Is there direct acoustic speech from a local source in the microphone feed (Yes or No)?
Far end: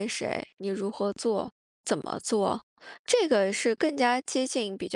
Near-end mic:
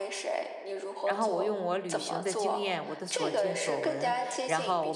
Yes